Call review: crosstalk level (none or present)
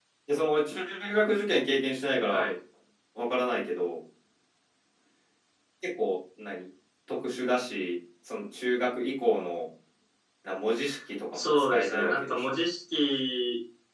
present